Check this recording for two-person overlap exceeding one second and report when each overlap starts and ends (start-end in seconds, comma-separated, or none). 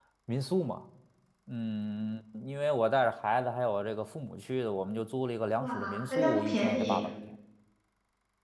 5.5-7.0